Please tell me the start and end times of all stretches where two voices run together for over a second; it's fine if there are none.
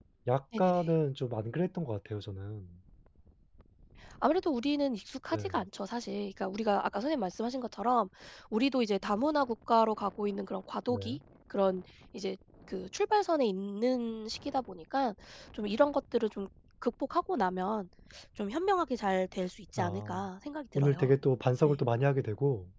none

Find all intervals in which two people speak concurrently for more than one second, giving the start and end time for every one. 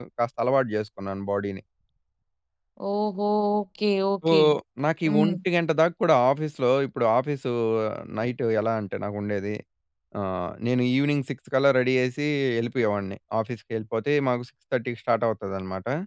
none

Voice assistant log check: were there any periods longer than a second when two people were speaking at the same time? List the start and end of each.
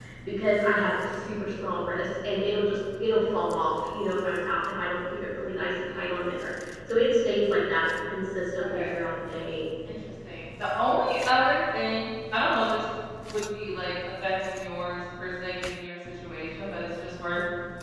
none

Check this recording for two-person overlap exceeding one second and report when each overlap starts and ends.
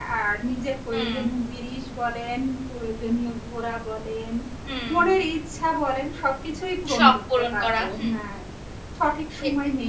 6.9-8.2

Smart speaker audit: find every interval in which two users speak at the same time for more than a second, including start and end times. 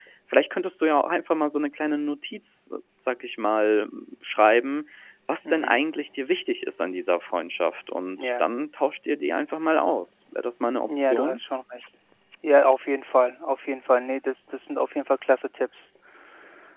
none

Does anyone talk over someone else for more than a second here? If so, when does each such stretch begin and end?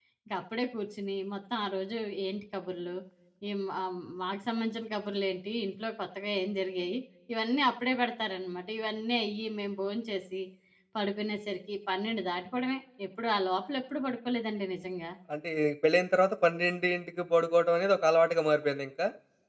none

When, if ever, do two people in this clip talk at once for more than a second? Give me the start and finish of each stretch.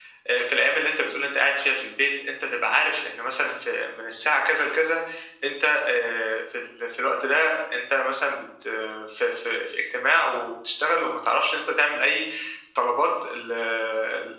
none

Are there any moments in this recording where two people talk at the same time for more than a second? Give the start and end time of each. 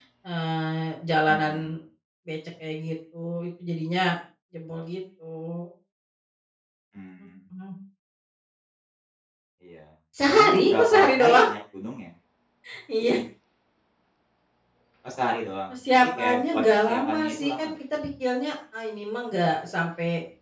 10.3-11.5, 15.7-17.7

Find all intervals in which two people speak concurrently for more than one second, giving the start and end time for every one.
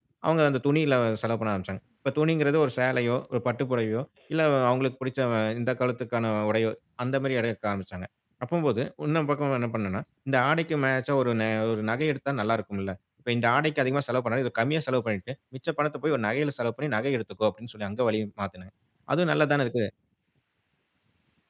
none

